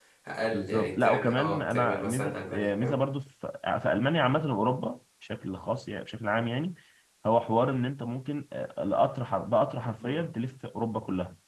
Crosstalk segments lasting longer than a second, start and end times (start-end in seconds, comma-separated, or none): 0.5-2.7